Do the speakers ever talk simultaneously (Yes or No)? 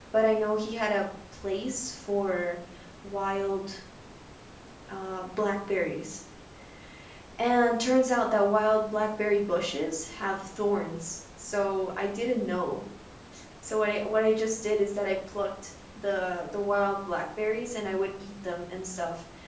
No